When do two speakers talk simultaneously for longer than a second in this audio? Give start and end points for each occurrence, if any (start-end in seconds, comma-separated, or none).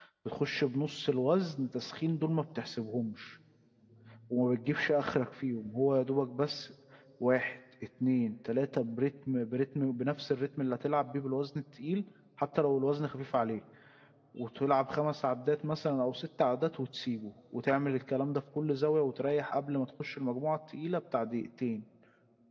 none